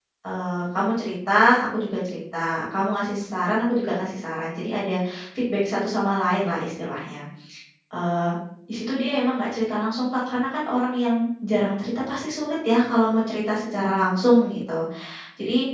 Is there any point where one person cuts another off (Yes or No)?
No